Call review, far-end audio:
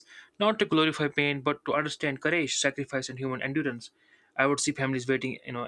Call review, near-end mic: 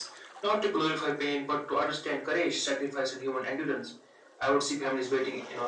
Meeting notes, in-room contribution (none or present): none